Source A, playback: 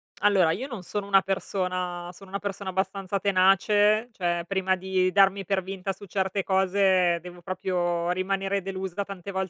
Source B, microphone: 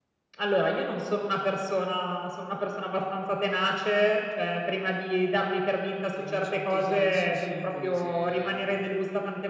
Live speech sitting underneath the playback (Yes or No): Yes